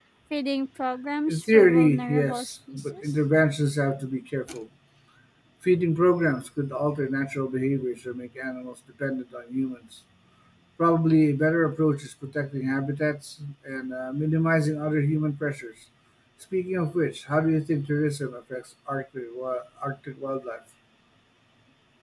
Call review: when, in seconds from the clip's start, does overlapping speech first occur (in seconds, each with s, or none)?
1.3 s